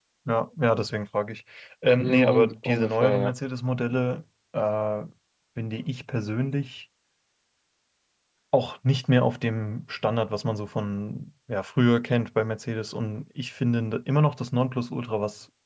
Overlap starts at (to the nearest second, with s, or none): 2 s